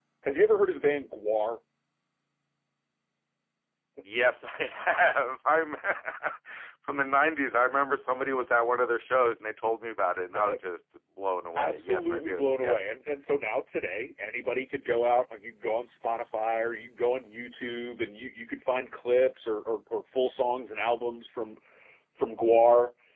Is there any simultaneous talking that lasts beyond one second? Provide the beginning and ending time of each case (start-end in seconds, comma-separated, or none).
11.6-12.8